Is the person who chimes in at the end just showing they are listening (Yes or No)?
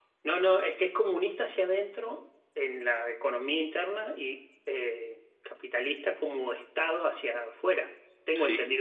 No